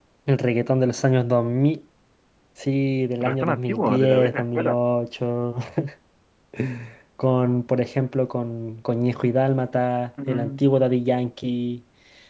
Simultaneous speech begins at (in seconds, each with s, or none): 3.2 s